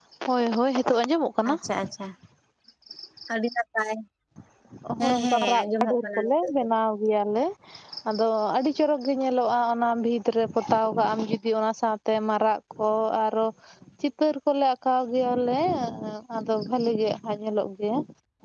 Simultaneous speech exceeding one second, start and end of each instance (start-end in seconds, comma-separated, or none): 5.0-6.5